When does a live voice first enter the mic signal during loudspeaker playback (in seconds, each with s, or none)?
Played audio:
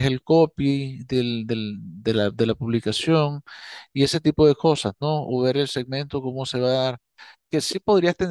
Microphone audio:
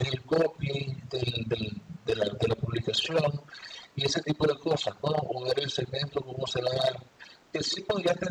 none